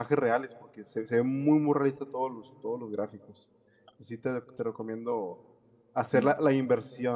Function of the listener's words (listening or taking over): listening